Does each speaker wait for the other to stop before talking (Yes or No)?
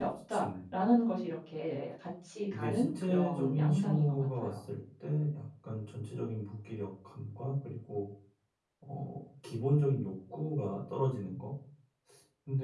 No